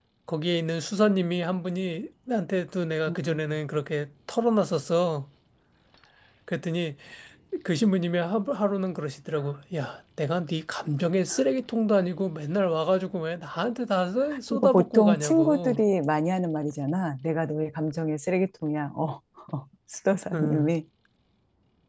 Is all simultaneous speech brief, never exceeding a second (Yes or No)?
No